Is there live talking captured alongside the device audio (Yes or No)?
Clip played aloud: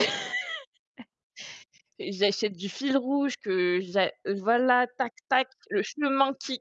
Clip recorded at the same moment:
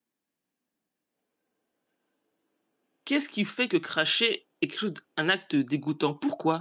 Yes